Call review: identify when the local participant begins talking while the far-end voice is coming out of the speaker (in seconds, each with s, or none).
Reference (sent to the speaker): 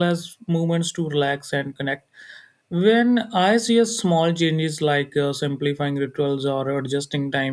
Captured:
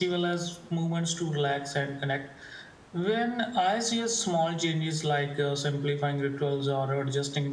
none